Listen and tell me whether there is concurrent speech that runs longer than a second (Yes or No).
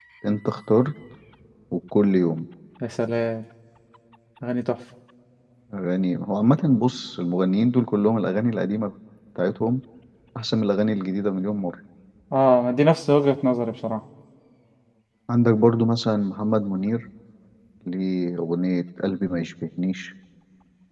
No